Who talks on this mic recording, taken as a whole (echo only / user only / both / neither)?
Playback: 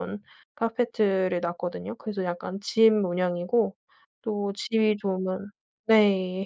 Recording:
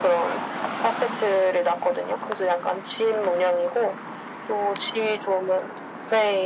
echo only